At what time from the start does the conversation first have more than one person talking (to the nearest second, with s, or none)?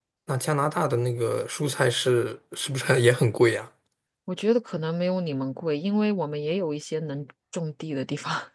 none